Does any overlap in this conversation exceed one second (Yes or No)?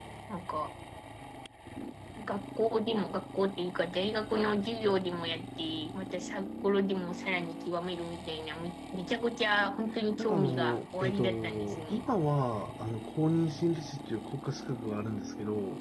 Yes